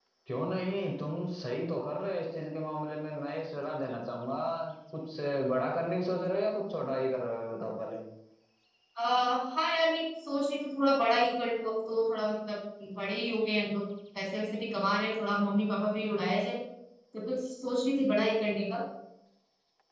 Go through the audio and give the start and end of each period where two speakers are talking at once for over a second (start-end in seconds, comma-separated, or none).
none